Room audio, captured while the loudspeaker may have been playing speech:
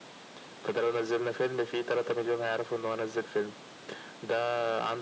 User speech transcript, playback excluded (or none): none